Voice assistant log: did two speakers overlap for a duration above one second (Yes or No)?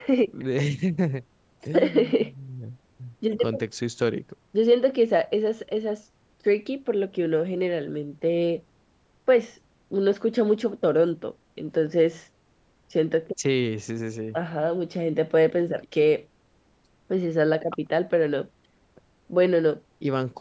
No